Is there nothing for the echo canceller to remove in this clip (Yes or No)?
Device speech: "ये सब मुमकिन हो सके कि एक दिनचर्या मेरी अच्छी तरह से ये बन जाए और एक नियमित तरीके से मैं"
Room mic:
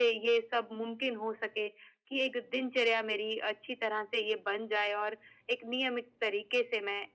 No